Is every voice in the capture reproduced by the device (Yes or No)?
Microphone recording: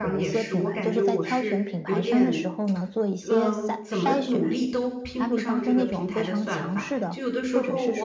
No